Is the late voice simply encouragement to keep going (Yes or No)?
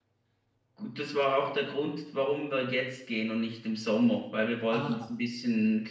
Yes